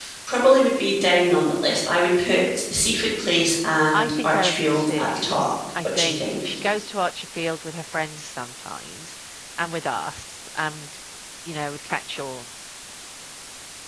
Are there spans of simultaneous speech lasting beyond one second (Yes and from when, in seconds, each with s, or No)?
Yes, from 3.9 s